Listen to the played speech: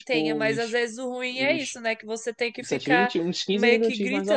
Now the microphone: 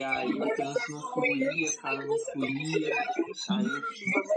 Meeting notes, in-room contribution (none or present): present